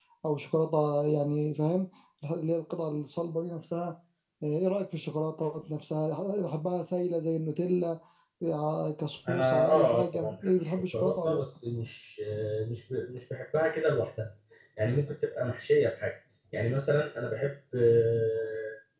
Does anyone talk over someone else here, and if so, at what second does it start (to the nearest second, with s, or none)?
9 s